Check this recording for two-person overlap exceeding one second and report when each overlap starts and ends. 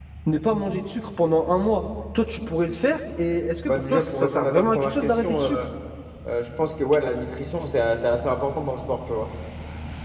3.6-5.7

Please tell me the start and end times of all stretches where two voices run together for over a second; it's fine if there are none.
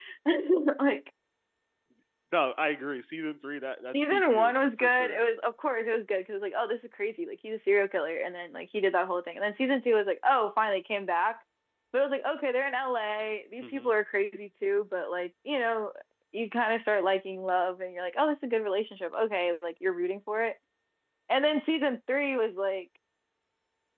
4.0-5.2

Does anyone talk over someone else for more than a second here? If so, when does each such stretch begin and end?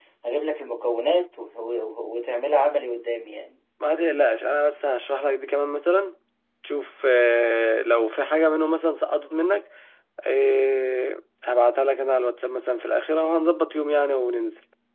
none

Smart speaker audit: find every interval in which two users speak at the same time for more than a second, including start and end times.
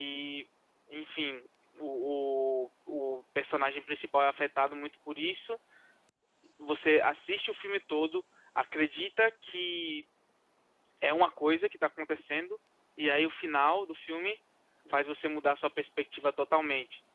none

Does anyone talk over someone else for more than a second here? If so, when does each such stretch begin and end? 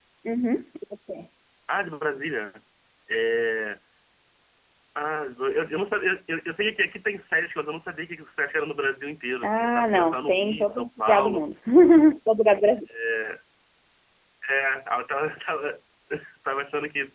9.4-11.4

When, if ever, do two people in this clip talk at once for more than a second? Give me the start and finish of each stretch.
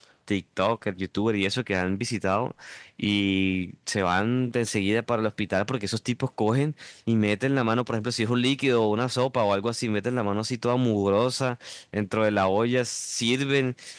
none

